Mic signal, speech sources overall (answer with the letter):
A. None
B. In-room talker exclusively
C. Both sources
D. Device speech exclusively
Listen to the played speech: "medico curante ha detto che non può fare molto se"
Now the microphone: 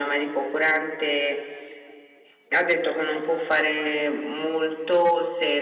D